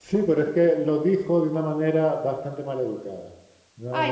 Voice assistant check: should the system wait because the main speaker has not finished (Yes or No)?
No